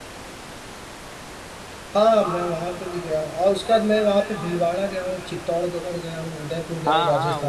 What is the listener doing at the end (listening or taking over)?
taking over